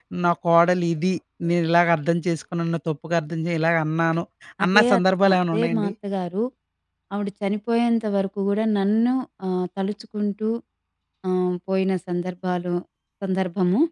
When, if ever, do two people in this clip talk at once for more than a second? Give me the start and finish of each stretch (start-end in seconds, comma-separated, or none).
4.7-5.9